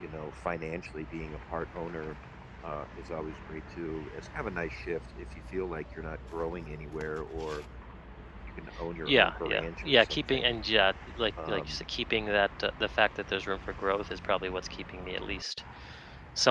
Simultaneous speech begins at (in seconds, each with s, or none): 9.1 s